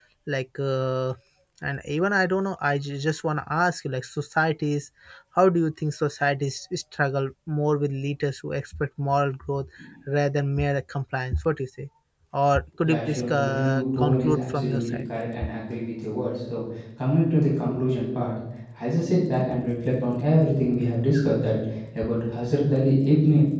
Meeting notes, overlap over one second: present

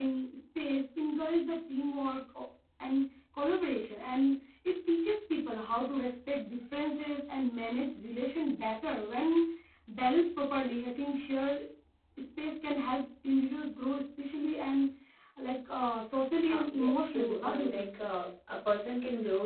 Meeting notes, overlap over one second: present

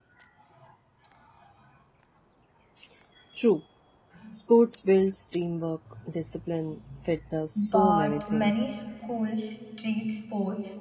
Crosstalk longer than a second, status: present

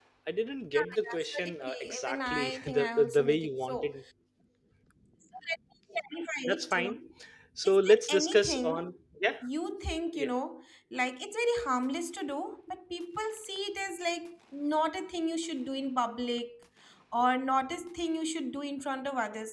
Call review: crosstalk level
present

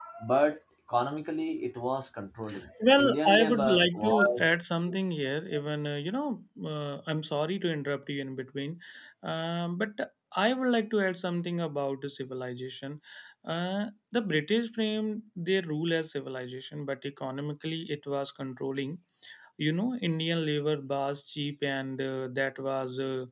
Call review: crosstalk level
present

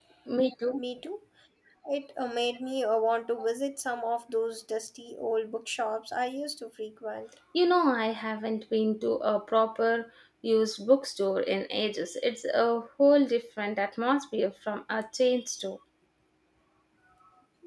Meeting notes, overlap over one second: none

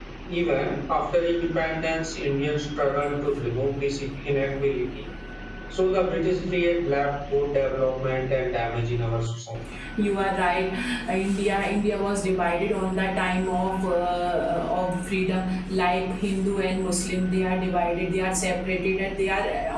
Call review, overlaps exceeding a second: none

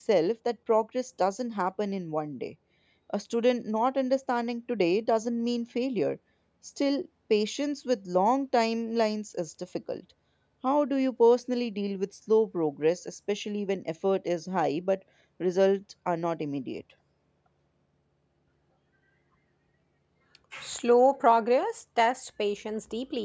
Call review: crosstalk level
none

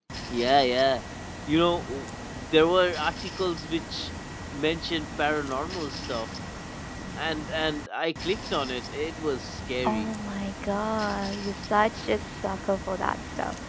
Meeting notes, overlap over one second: none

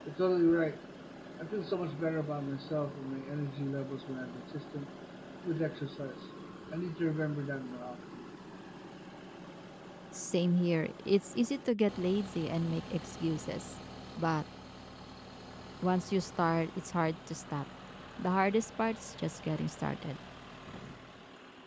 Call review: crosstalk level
none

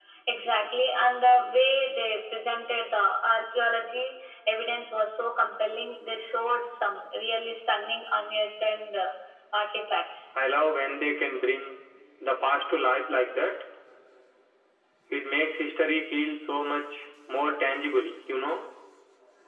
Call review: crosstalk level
none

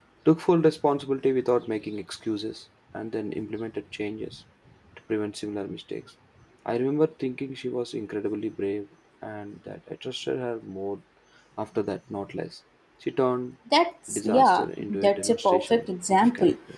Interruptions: present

